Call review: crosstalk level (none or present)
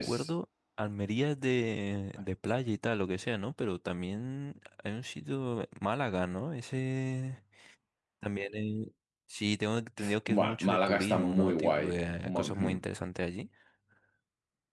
present